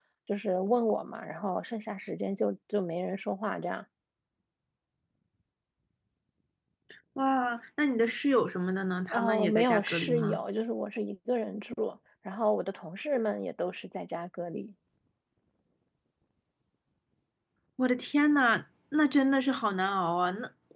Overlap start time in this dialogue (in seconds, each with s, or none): 9.1 s